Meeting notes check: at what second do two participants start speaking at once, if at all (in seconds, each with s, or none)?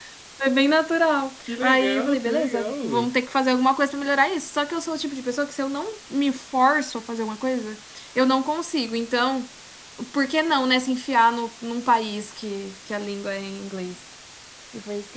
1.4 s